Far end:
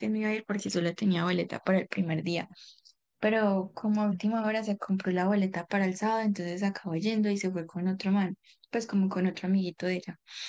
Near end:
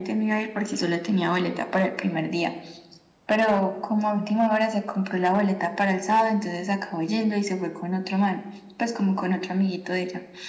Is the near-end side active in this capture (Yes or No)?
No